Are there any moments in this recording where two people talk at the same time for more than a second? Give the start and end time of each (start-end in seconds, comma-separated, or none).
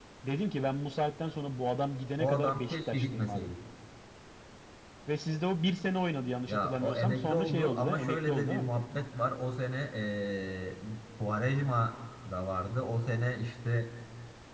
2.2-3.5, 6.5-8.7